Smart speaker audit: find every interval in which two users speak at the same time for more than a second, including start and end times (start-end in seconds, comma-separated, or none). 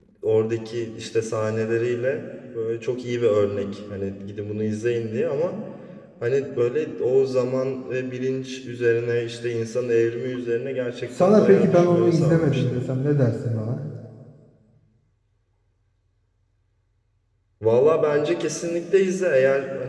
11.2-12.8